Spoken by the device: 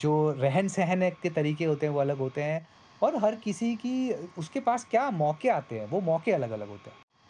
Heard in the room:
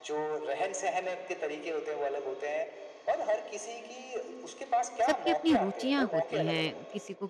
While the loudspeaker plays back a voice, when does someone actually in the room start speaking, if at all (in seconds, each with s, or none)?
5.1 s